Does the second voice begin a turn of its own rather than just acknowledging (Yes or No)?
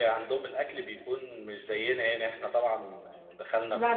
No